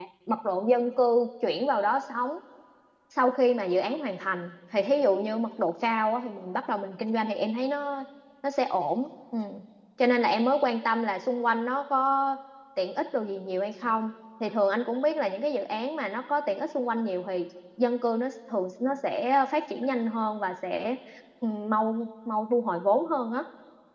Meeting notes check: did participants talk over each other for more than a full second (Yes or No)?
No